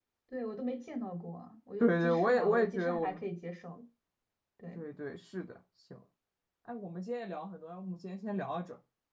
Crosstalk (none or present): present